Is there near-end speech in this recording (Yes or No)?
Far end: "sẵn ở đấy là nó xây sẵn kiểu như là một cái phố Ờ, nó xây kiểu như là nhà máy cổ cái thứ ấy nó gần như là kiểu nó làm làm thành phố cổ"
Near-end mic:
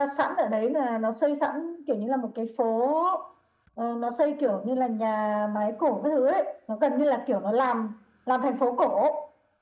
No